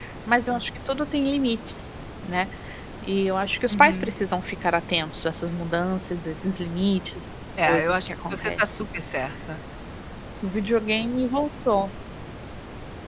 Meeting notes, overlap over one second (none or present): present